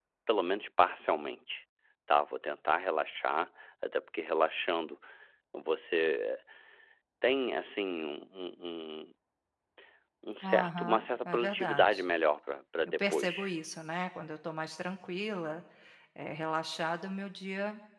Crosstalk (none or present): present